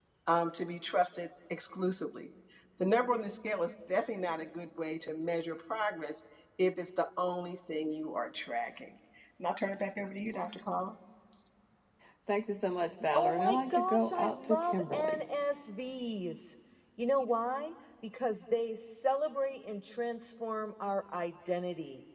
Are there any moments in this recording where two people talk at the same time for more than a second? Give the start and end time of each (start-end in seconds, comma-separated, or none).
13.1-15.2